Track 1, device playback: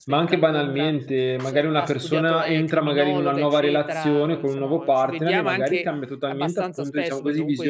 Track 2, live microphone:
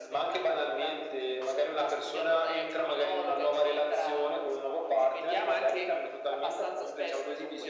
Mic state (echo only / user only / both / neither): echo only